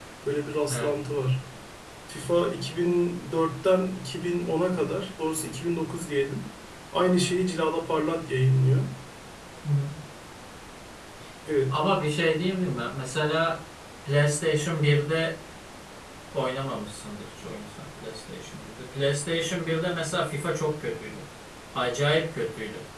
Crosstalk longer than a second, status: none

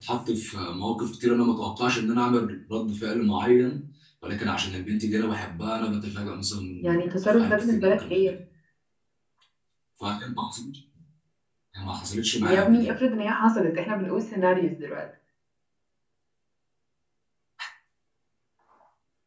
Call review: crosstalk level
present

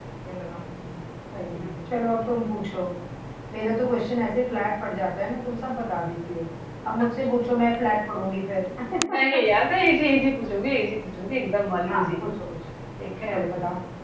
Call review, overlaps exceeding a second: none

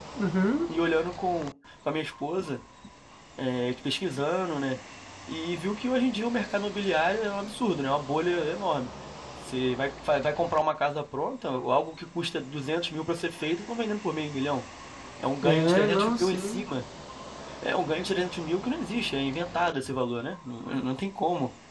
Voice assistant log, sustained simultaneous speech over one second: present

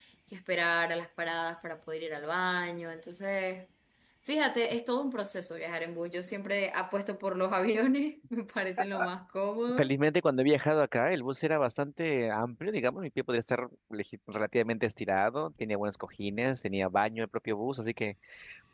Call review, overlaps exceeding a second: none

